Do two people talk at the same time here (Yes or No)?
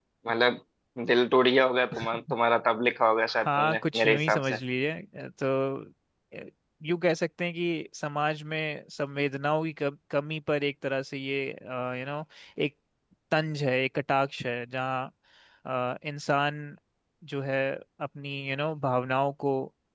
Yes